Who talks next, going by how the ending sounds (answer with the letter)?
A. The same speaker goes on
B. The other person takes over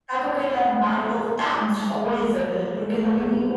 A